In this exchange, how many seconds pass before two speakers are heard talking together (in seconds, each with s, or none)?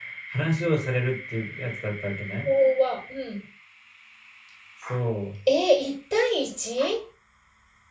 none